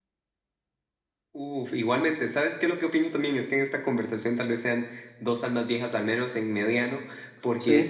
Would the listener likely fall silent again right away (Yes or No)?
Yes